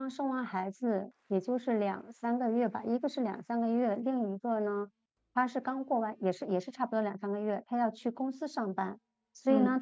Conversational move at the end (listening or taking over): listening